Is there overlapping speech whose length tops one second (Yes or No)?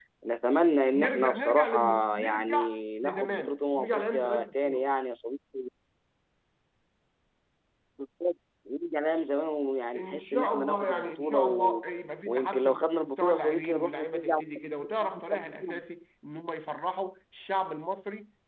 Yes